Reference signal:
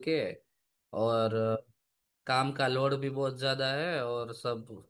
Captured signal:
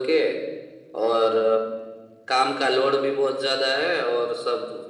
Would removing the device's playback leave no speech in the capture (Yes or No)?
Yes